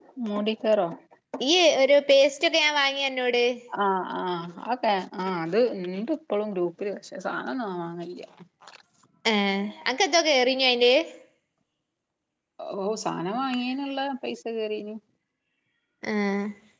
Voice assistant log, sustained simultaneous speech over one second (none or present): none